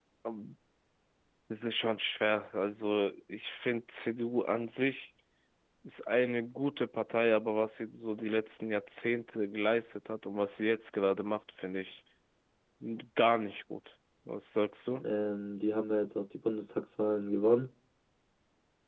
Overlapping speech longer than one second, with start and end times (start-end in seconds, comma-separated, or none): none